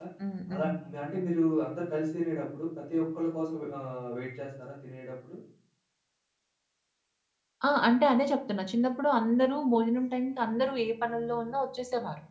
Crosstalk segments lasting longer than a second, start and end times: none

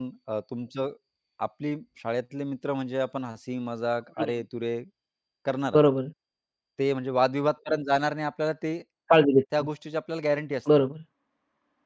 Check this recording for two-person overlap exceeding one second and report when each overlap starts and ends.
none

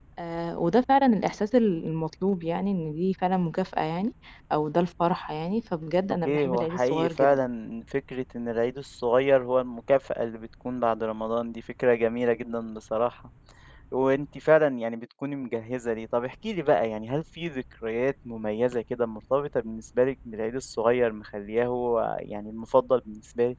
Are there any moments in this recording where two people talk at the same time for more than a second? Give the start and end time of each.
6.2-7.5

